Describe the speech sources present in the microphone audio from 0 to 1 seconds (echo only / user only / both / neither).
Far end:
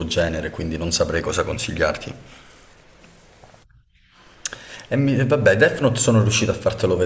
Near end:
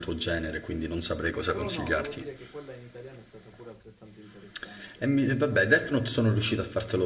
echo only